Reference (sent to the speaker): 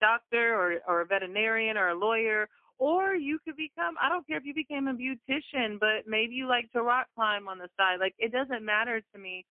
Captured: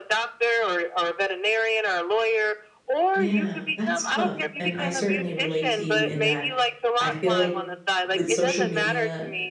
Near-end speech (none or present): present